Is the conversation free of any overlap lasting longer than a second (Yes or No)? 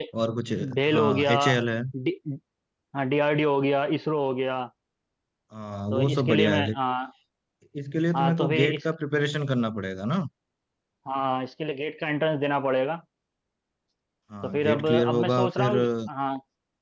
No